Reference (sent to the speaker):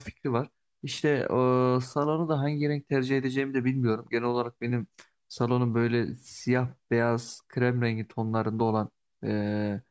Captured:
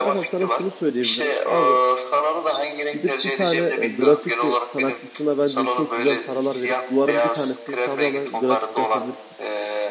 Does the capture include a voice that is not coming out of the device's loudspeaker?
Yes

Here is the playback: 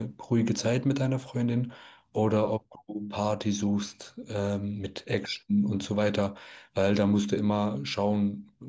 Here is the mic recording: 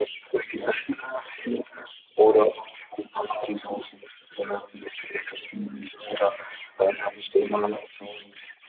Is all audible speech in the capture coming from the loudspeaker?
Yes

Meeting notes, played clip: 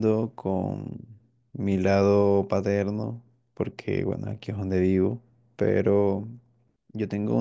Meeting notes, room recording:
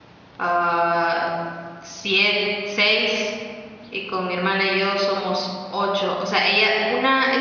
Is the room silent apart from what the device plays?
No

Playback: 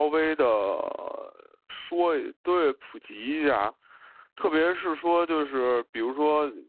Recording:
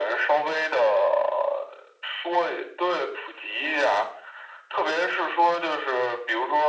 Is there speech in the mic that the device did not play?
No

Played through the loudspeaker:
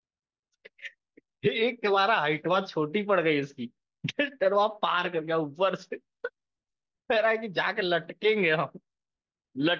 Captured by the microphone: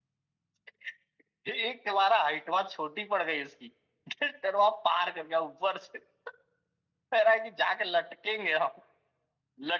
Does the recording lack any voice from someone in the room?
Yes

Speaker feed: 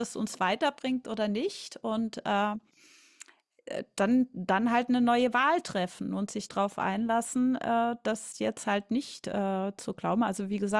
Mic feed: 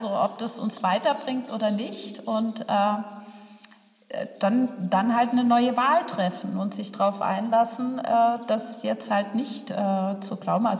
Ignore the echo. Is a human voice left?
No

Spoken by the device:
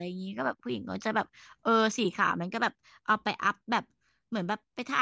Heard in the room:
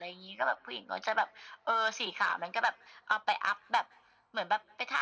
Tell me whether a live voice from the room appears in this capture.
No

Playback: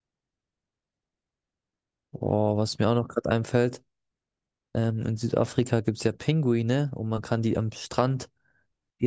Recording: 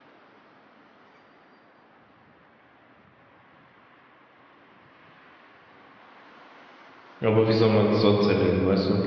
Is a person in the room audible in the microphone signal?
Yes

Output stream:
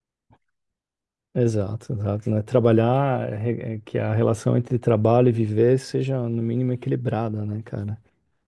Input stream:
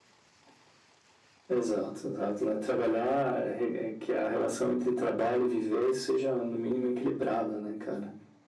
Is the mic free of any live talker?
Yes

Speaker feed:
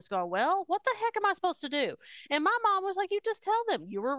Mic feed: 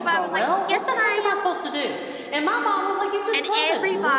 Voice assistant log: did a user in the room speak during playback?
Yes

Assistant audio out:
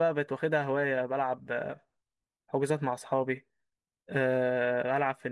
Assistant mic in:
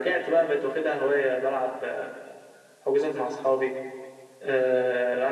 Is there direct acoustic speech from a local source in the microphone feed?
No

